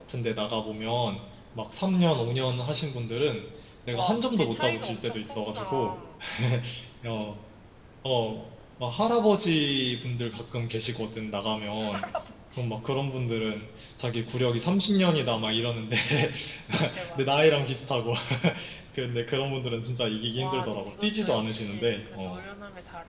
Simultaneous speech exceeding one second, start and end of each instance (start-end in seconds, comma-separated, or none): 3.9-6.0, 20.4-22.4